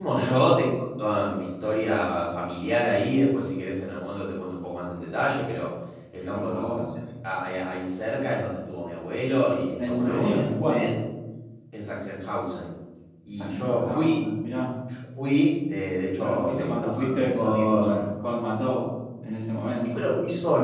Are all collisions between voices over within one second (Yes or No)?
No